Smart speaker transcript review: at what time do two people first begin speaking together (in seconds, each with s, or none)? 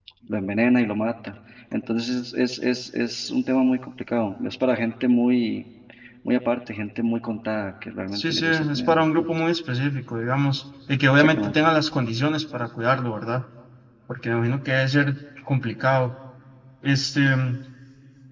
8.1 s